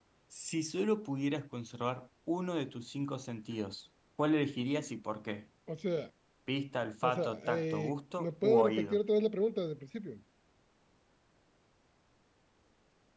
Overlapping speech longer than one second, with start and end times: 7.0-9.0

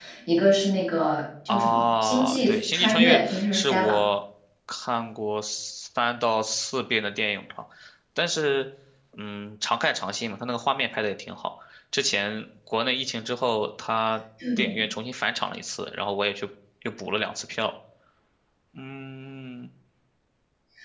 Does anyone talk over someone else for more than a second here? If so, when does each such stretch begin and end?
1.5-3.9

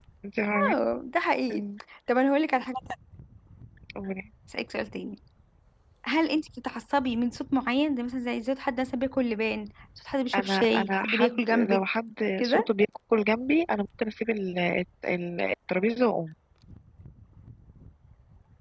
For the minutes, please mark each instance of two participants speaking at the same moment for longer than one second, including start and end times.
10.4-11.8

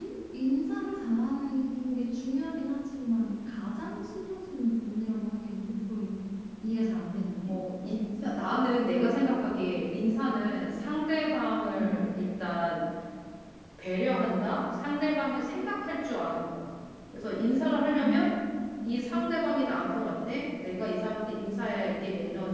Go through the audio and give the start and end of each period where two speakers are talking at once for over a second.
none

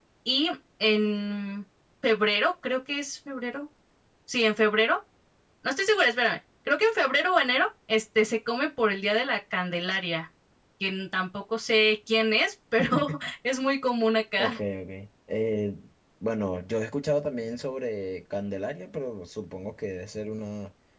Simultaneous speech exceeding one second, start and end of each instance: none

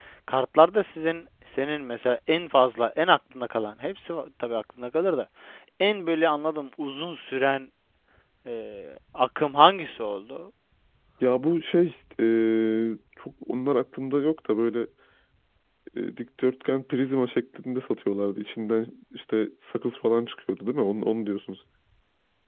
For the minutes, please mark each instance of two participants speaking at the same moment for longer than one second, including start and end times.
none

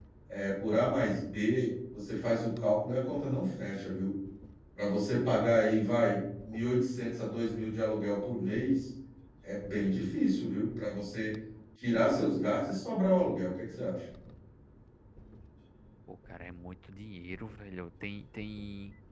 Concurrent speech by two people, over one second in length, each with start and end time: none

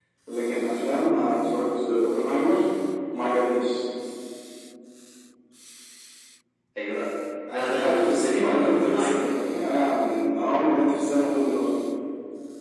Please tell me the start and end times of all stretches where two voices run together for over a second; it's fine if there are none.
7.5-9.5

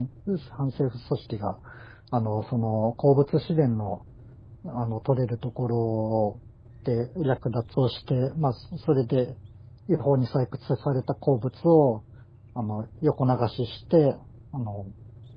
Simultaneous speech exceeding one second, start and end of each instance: none

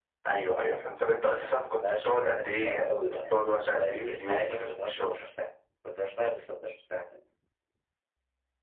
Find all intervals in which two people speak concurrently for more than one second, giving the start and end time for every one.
1.8-5.2

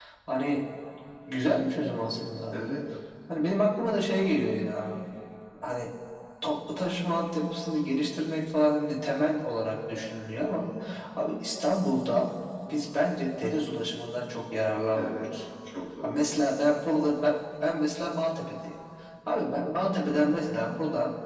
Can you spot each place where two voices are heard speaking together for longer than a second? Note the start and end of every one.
none

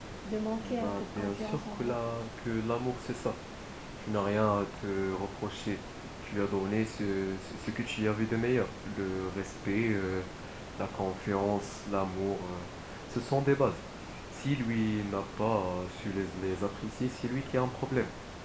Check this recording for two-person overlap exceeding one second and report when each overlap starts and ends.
0.6-2.0

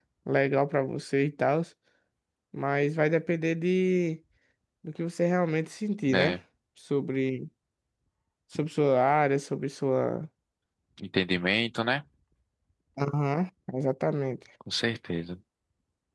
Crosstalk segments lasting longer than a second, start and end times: none

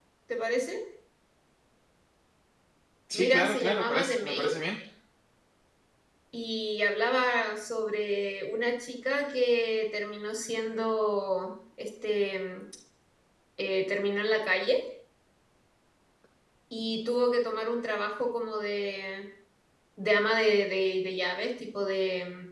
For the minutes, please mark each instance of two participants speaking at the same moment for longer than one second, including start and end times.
3.1-4.5

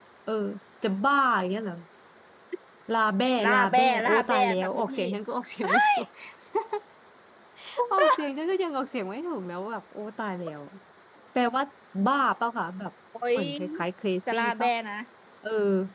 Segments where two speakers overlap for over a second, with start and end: 3.4-5.0

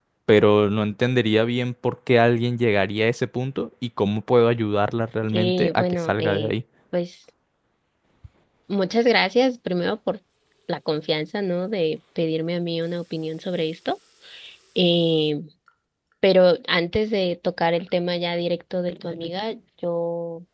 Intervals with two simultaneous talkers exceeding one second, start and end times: 5.3-6.5

